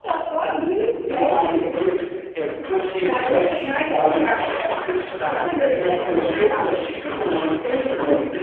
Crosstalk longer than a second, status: present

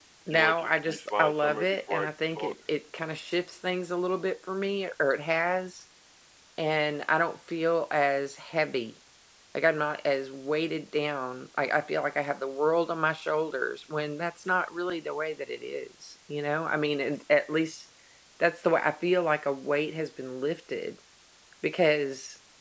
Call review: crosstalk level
present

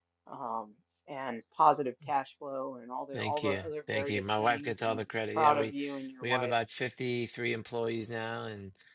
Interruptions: present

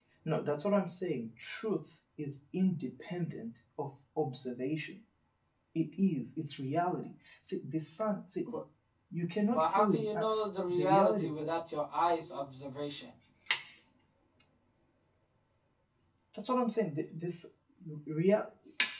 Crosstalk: present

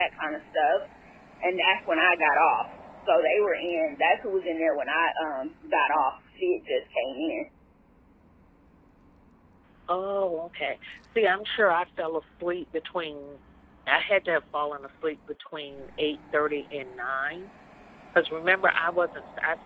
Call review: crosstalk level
none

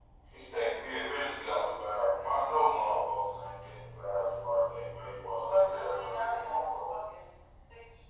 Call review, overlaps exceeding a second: present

